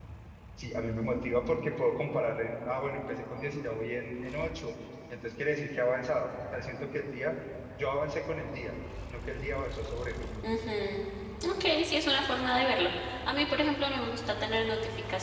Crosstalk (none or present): none